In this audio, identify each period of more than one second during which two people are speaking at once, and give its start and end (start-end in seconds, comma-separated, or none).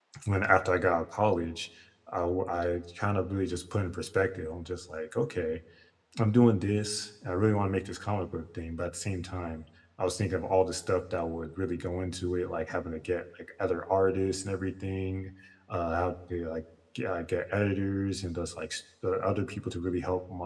none